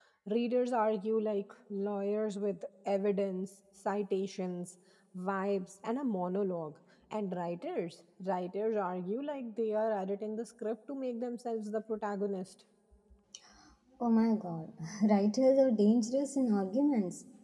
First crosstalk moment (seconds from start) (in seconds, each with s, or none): none